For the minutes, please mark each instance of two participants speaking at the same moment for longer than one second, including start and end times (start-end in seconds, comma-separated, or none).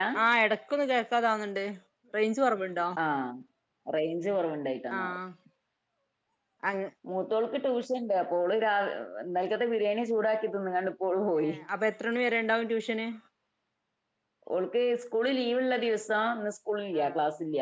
none